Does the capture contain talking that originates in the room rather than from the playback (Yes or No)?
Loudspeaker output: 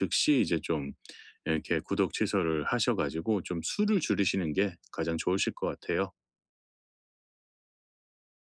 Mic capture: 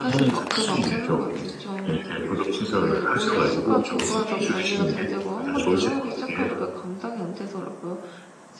Yes